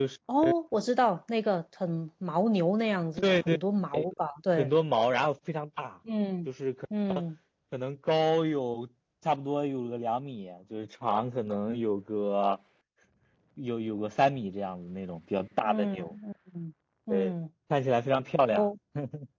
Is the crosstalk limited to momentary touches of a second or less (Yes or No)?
Yes